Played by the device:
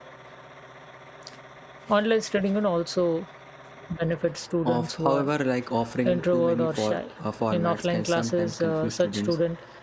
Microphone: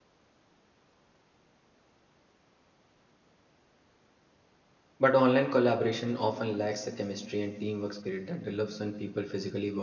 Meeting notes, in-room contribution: present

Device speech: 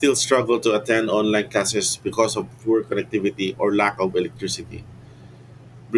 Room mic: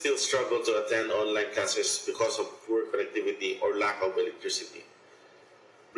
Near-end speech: none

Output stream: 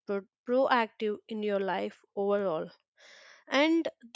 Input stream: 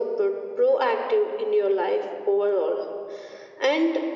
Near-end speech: none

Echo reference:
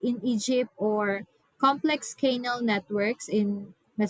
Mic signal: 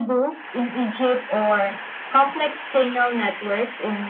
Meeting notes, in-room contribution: none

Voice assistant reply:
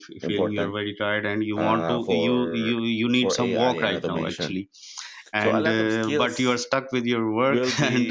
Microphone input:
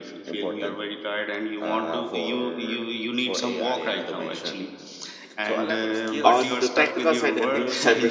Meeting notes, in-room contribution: present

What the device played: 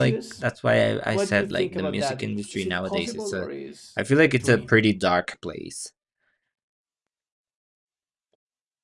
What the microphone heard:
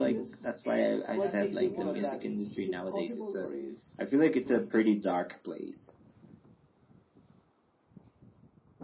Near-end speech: present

